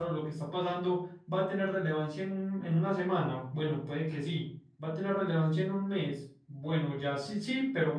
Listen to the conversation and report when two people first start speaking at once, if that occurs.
none

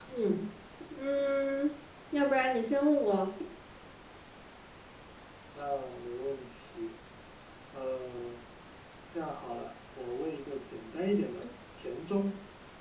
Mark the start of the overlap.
none

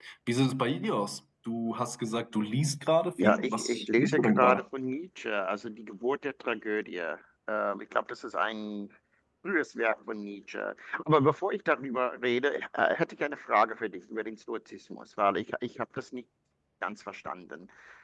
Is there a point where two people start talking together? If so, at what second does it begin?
3.2 s

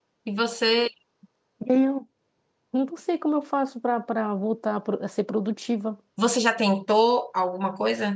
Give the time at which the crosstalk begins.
none

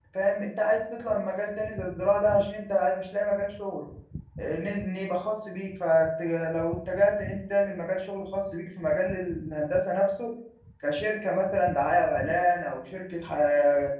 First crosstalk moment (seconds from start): none

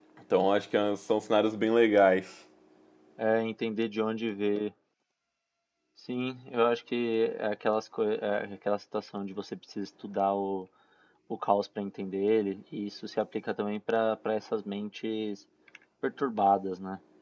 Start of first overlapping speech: none

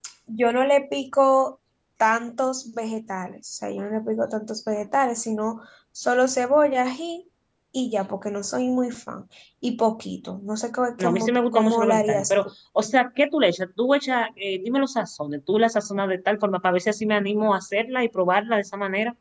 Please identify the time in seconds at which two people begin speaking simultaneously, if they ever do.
11.0 s

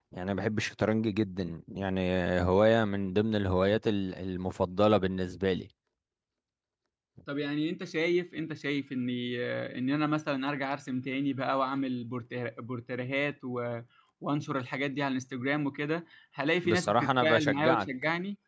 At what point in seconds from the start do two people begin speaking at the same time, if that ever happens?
16.6 s

